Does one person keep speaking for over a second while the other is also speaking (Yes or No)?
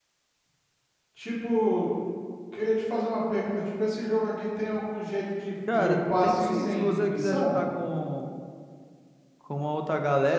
Yes